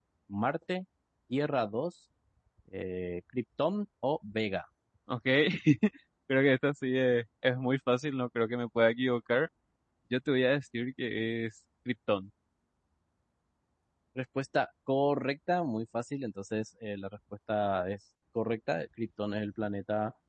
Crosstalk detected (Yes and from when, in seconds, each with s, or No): No